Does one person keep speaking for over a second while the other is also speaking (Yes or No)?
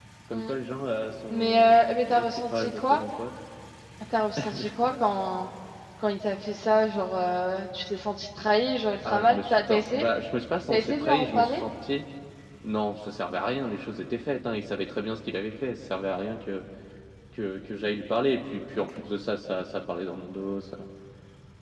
Yes